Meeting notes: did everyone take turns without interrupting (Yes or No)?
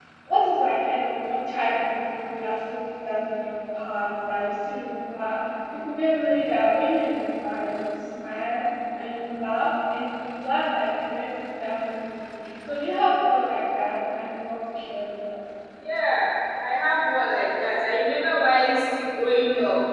Yes